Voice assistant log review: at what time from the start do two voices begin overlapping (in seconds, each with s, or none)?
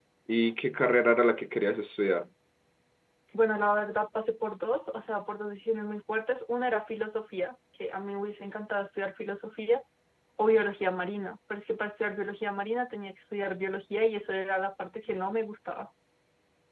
none